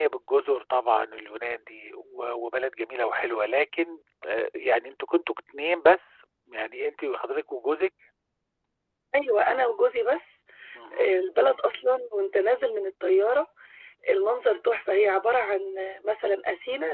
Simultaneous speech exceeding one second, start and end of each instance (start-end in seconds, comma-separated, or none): none